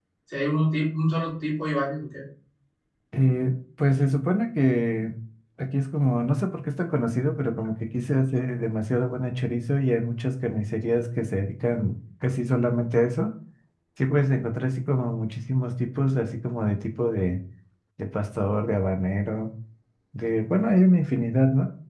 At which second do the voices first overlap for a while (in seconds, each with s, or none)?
none